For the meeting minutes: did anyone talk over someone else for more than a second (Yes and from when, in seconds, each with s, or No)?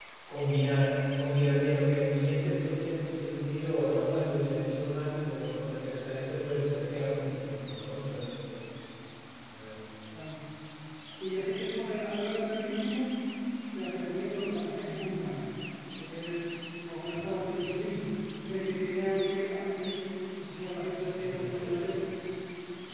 No